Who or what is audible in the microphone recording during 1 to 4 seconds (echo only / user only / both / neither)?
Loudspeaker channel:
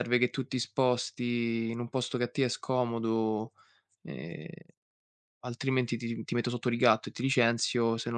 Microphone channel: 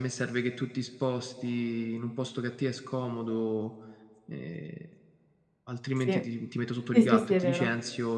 echo only